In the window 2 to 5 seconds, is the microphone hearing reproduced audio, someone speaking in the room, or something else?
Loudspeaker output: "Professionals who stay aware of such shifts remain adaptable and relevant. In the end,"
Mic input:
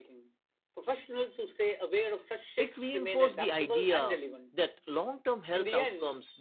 both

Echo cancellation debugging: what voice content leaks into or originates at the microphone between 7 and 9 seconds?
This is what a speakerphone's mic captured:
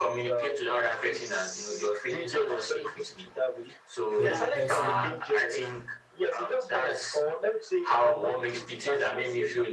echo only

